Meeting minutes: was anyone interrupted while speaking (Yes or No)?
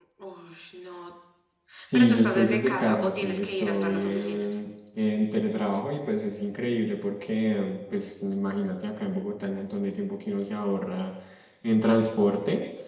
Yes